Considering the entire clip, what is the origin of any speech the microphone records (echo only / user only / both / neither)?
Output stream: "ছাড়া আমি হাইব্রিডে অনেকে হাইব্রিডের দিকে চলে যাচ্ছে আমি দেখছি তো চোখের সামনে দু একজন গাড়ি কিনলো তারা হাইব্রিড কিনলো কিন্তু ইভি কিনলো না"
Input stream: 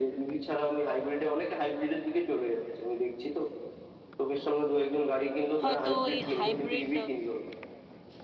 both